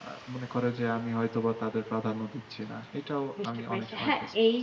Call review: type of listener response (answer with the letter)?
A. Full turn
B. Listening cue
A